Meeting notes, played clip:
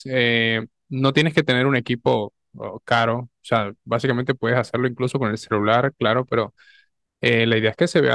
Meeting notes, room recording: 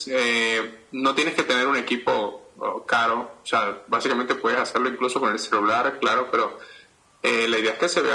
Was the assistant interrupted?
No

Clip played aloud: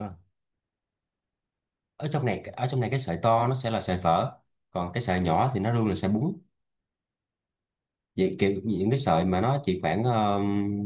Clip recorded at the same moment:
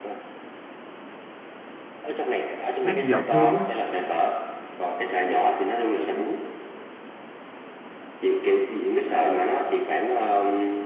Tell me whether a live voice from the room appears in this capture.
Yes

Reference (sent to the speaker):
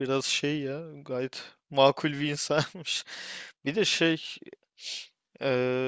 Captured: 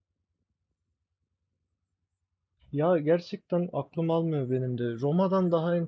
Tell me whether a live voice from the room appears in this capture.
Yes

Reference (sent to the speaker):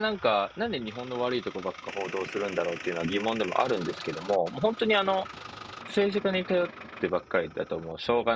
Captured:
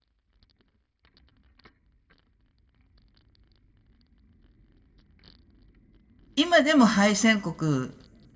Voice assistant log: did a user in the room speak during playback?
Yes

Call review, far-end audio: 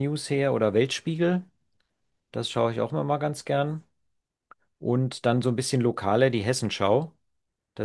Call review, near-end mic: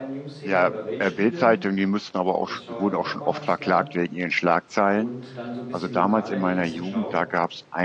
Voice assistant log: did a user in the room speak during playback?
Yes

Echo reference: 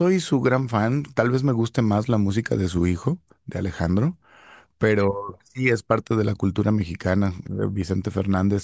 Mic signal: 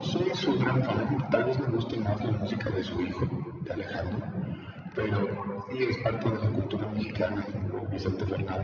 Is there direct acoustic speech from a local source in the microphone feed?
No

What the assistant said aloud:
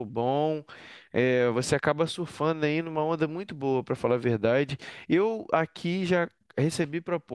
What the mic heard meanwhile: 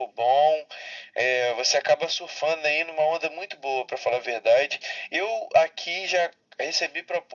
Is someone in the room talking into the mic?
No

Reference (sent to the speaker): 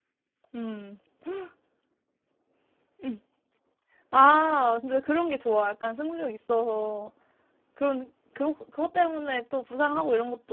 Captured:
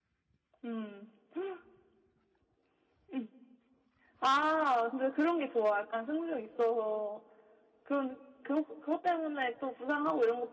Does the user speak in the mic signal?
No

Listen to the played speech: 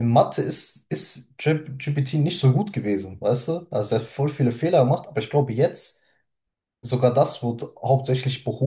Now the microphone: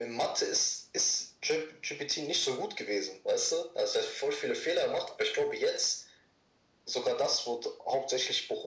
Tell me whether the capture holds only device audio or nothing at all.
Yes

